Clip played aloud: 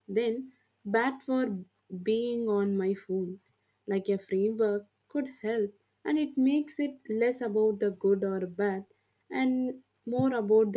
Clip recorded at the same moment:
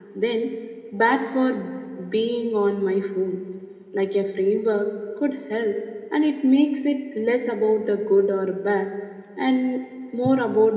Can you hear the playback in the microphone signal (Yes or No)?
Yes